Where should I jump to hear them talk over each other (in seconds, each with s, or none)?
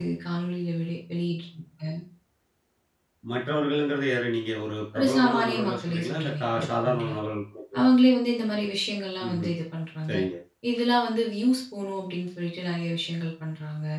5.0 s